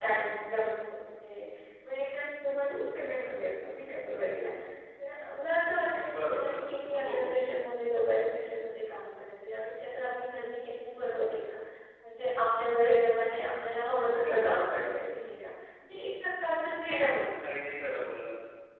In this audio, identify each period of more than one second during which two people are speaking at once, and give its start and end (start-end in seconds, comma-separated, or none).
none